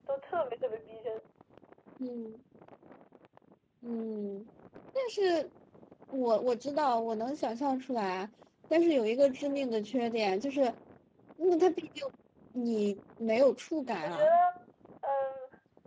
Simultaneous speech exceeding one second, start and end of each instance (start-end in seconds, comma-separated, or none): none